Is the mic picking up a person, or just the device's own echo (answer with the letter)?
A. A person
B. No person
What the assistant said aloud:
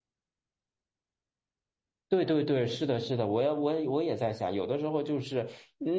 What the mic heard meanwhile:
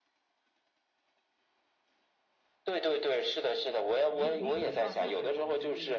A